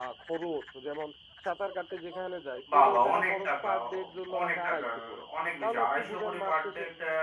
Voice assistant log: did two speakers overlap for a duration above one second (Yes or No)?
Yes